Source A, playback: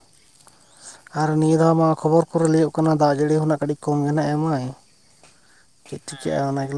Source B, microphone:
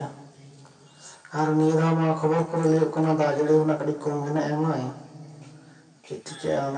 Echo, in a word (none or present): present